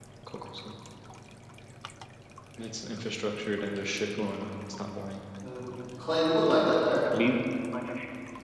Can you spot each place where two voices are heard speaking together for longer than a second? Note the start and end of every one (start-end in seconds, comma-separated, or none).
none